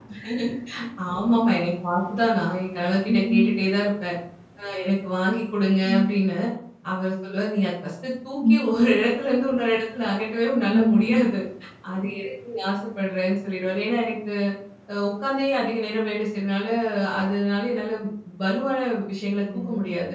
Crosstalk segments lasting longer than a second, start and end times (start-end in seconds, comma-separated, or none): none